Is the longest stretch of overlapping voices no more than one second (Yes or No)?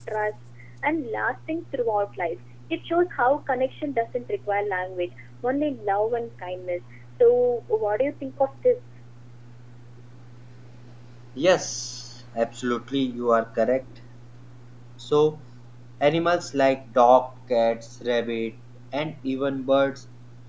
Yes